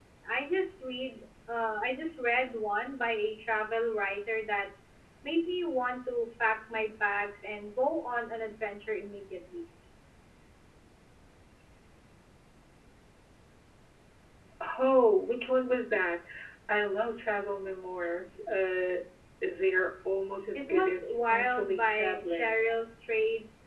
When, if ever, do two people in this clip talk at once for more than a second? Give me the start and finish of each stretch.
20.6-22.6

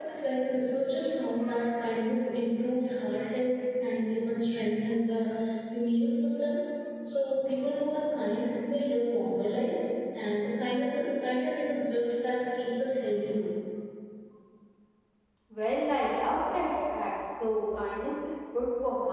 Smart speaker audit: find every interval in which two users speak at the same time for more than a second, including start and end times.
none

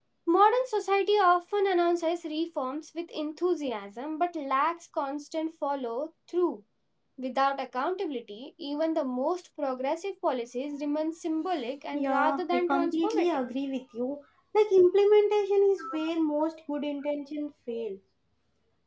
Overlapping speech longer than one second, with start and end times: 11.9-13.4

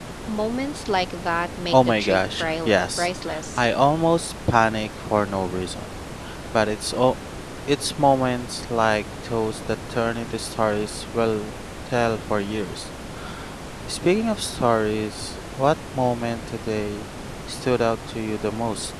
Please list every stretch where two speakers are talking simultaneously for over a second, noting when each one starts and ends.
1.7-3.1

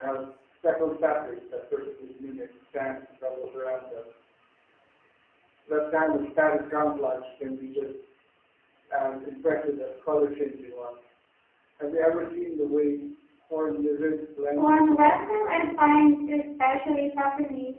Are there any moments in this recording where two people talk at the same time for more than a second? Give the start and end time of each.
14.6-15.8

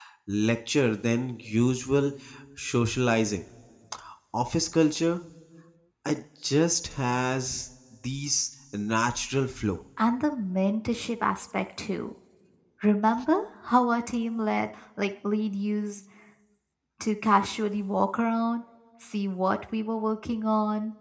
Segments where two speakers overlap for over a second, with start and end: none

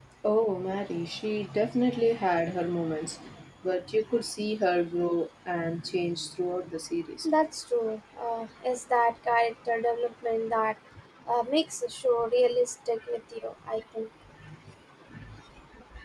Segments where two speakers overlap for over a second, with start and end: none

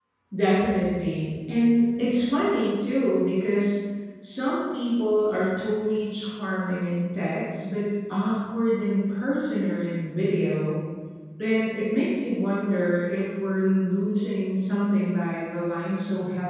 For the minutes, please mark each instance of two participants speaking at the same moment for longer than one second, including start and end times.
none

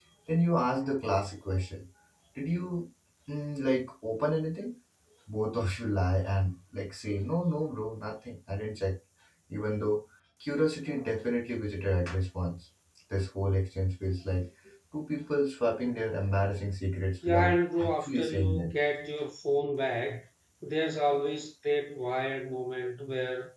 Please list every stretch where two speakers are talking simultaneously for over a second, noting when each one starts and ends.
17.2-18.7

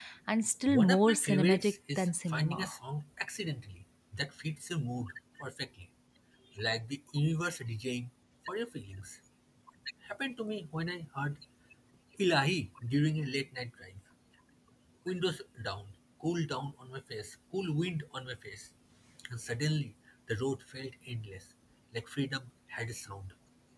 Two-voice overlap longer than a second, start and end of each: 0.7-2.7

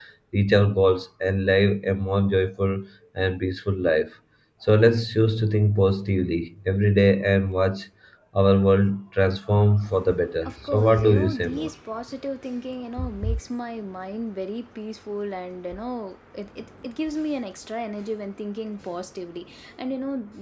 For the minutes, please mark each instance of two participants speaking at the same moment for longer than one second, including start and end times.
10.4-11.7

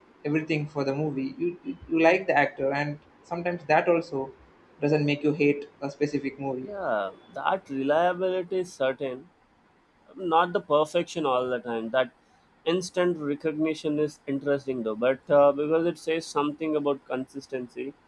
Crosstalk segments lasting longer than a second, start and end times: none

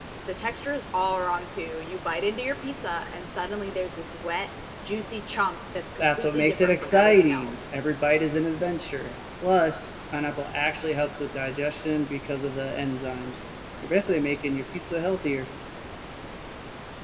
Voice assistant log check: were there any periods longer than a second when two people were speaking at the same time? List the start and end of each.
6.0-7.7

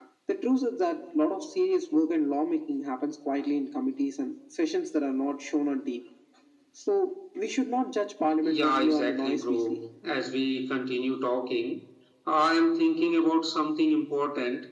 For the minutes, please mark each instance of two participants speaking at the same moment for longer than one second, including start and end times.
8.4-9.8

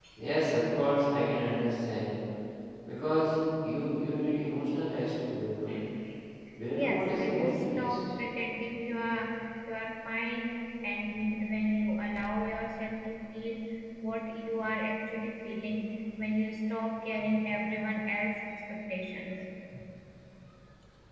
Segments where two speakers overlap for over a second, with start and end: 6.7-8.0

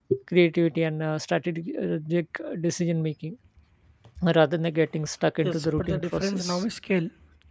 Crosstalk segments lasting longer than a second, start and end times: 5.4-6.6

